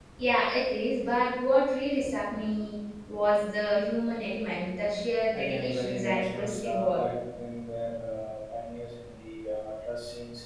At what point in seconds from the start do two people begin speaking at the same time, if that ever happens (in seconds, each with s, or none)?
5.3 s